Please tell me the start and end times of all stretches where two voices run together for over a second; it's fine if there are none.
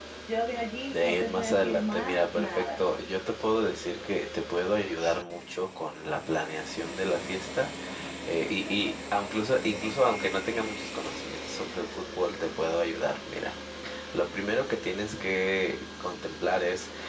0.9-2.8

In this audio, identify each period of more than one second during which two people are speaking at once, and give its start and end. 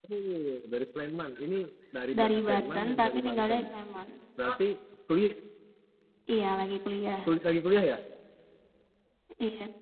2.2-3.6

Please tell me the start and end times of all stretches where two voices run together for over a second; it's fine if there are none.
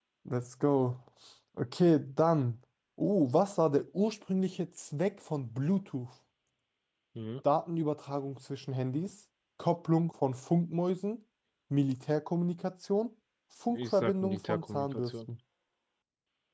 13.7-15.1

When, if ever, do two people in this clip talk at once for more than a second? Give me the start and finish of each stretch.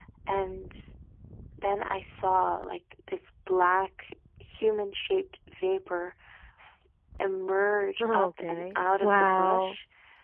8.0-9.8

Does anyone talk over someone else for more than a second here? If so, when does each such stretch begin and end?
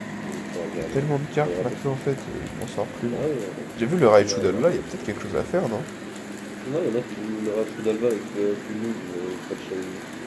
none

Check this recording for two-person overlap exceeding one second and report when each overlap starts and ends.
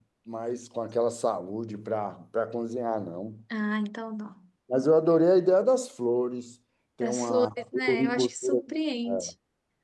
7.0-8.6

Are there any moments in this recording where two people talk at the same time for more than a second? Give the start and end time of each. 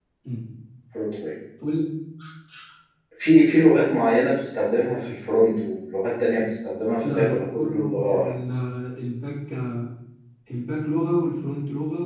7.0-8.4

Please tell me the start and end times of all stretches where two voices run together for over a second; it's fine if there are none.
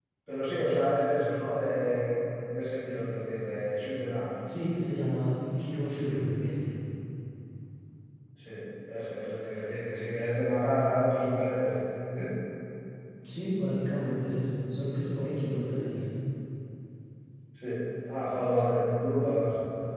none

